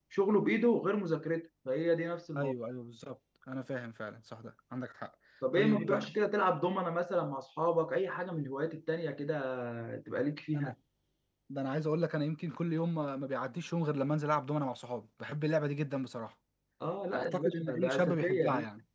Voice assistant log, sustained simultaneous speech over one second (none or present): present